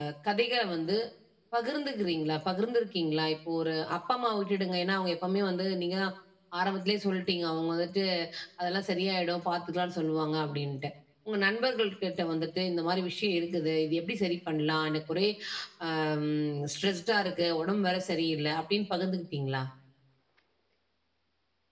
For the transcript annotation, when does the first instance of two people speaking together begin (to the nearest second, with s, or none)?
none